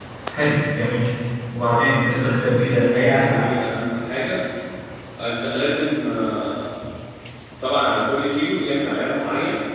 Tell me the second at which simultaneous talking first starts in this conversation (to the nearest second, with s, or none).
2 s